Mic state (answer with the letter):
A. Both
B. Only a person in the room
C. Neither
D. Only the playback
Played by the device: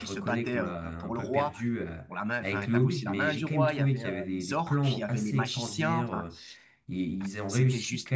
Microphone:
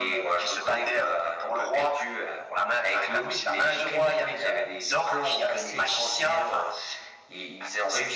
D